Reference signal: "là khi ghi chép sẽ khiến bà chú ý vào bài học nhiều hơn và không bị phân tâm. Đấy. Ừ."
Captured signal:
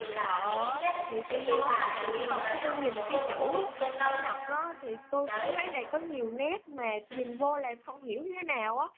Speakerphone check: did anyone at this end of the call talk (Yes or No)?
Yes